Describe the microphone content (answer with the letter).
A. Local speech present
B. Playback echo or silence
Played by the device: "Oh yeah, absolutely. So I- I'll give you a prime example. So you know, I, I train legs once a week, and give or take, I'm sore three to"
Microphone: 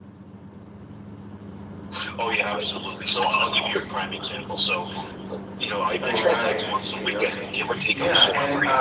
A